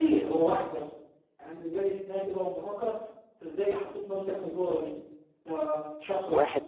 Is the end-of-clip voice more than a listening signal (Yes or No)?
No